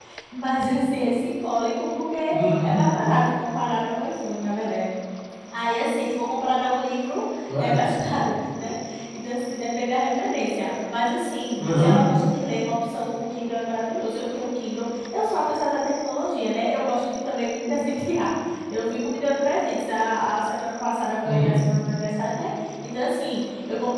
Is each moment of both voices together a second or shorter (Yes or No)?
Yes